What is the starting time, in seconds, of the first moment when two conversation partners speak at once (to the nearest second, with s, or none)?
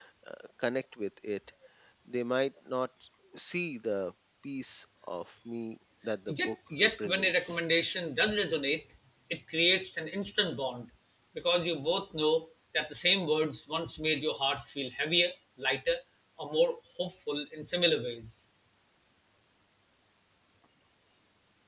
6 s